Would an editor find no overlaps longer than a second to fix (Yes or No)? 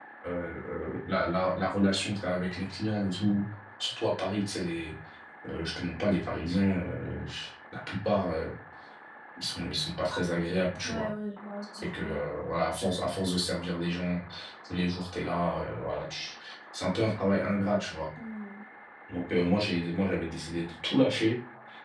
Yes